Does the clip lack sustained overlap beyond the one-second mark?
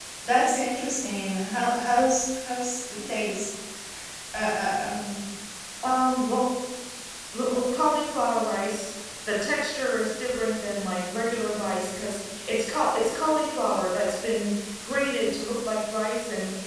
Yes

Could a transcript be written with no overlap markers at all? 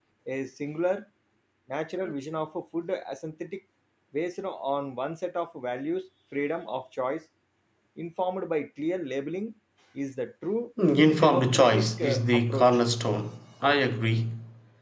No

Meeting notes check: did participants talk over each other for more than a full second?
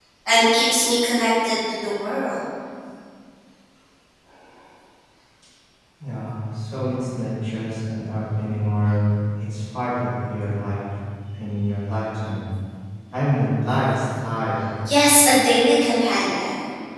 No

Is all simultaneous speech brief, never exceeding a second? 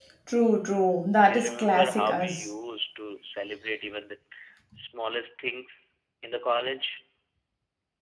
No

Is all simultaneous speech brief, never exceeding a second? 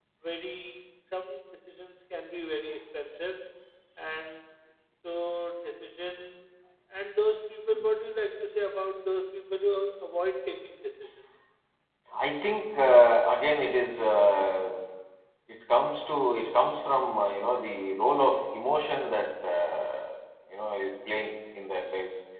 Yes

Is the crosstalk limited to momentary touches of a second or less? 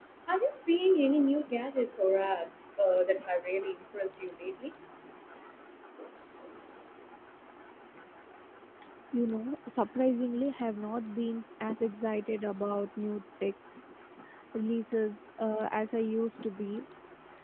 Yes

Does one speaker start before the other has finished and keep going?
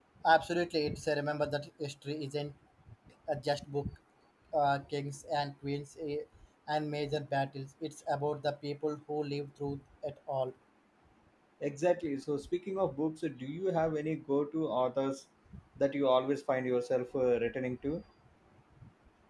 No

